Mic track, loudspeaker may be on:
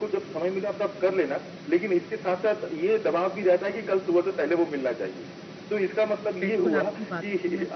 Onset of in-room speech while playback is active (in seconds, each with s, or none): 6.4 s